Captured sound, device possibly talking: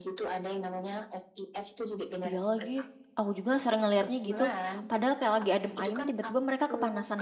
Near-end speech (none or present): present